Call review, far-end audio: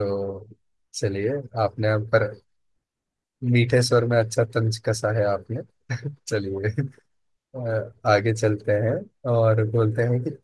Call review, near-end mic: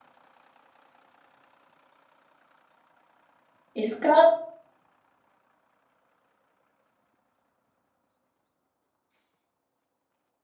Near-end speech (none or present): present